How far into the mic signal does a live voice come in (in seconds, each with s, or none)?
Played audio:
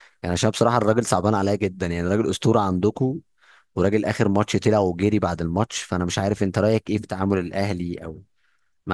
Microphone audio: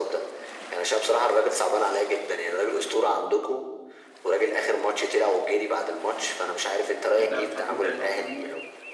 7.2 s